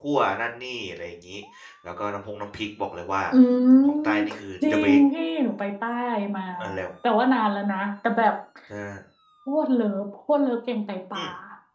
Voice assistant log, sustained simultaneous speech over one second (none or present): none